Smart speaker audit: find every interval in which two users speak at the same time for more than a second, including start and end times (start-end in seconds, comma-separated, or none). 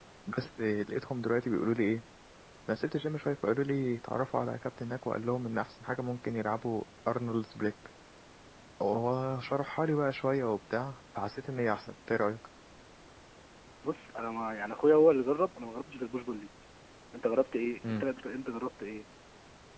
none